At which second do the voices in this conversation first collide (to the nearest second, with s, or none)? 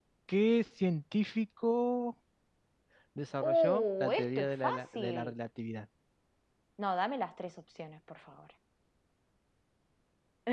3 s